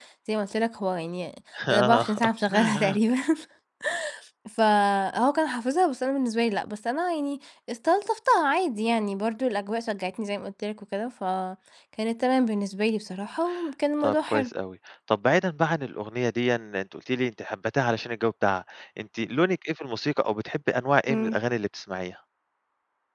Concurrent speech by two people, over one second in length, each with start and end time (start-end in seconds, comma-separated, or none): 1.7-3.0